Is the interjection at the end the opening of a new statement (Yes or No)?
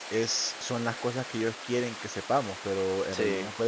No